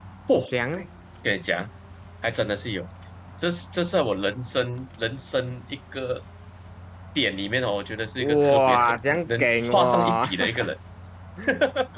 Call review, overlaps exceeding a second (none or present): present